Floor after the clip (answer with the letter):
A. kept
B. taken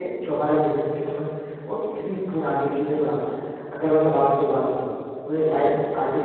A